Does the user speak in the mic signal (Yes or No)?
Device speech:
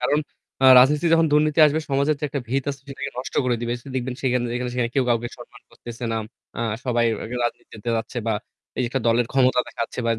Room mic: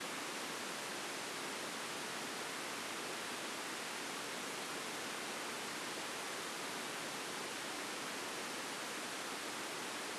No